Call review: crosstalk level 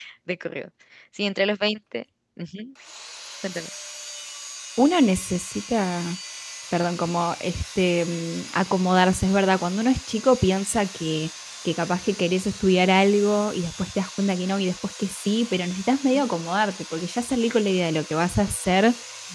none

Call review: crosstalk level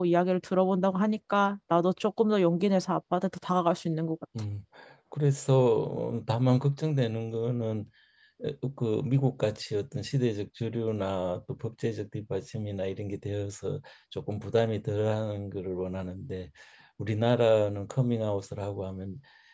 none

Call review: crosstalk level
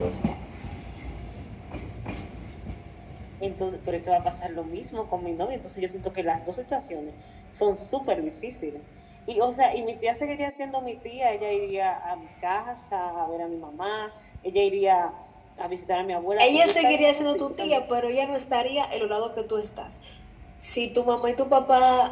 present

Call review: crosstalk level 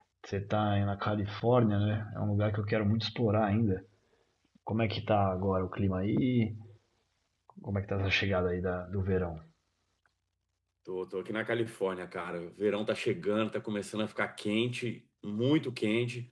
none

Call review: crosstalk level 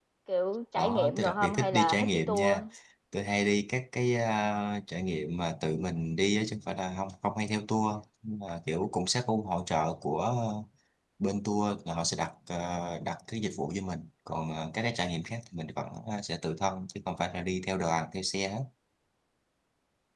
present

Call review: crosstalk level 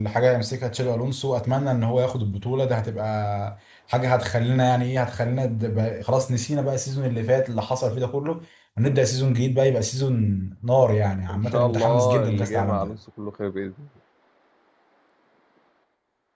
present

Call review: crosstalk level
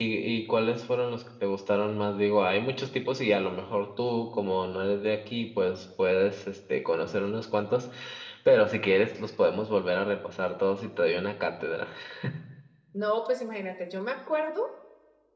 none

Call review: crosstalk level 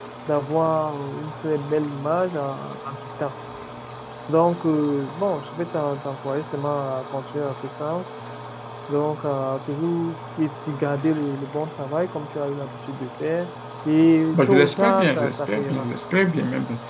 present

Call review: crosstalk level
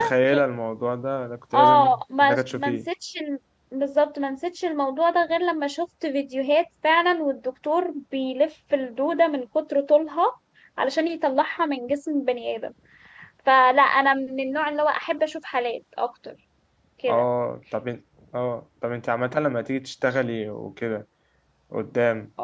present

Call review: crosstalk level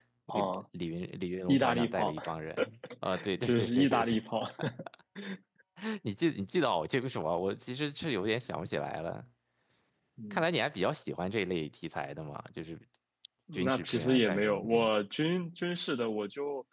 present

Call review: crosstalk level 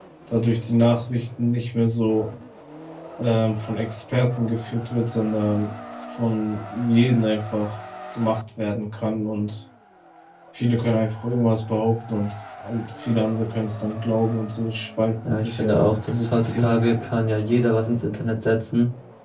present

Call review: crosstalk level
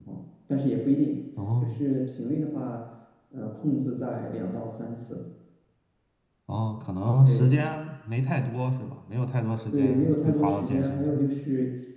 present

